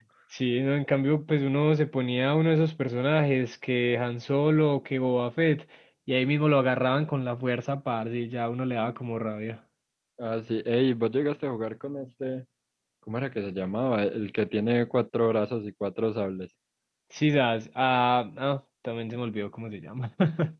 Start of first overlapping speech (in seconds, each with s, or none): none